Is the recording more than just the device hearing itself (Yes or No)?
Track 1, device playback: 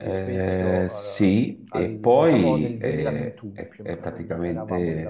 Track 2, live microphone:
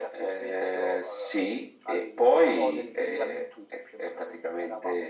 No